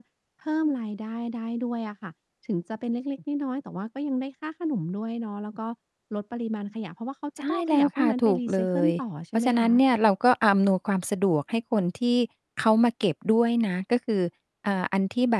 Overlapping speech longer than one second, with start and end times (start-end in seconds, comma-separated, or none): 7.5-8.9